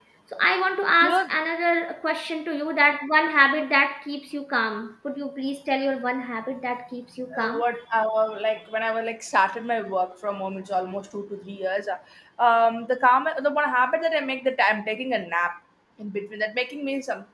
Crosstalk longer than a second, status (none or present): none